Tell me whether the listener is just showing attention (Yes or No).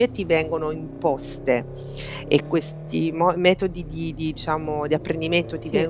Yes